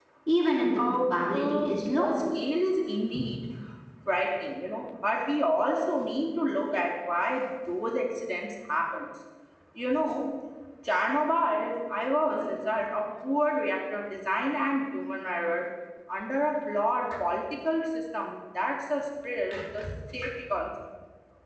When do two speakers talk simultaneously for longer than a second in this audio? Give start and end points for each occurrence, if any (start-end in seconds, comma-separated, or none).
0.8-2.1